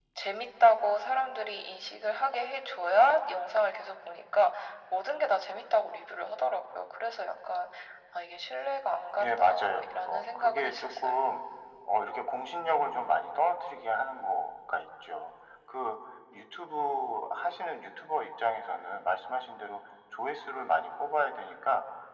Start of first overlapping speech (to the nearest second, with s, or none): 9 s